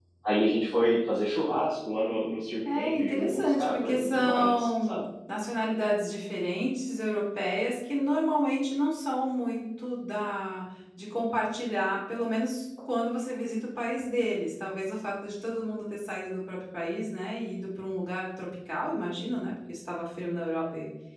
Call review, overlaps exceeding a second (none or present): present